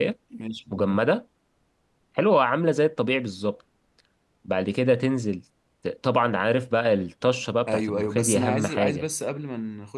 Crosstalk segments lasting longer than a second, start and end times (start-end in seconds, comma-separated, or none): 7.7-9.1